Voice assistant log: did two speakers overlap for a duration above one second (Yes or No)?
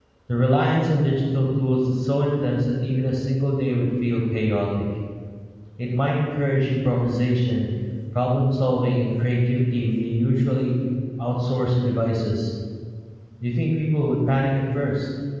No